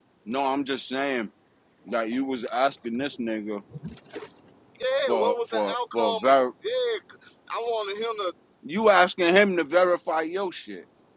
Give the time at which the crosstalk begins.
5.1 s

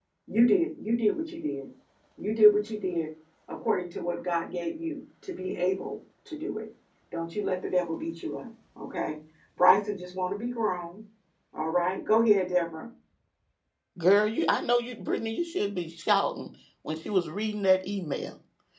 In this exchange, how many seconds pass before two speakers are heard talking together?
none

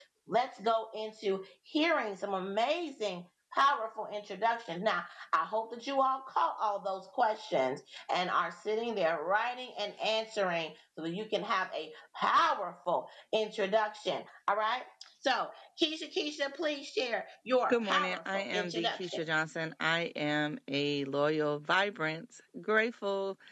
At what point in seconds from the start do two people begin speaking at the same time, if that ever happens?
17.7 s

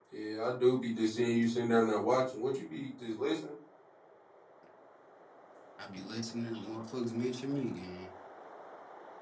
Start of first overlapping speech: none

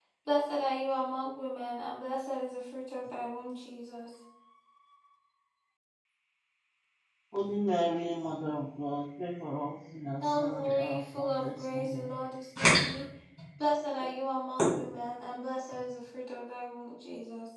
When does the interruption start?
10.2 s

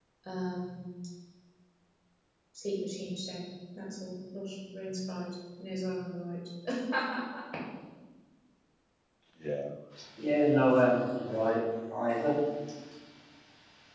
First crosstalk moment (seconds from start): none

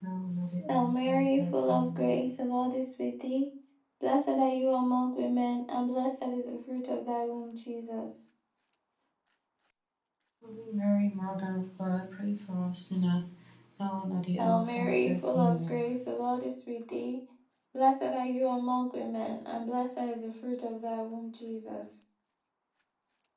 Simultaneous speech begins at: 0.7 s

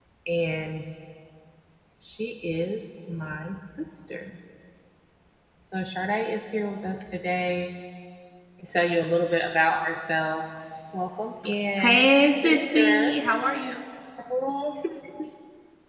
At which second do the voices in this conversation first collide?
11.8 s

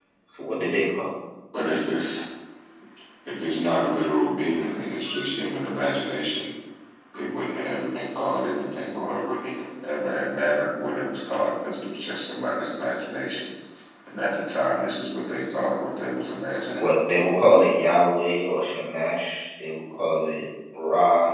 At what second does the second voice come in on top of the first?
none

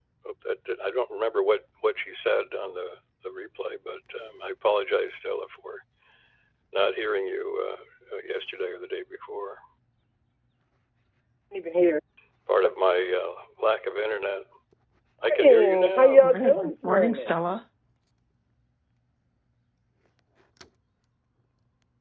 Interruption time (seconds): 15.4 s

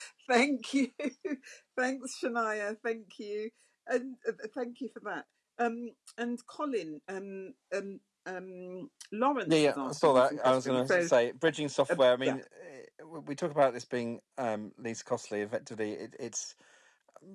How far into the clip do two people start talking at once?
9.4 s

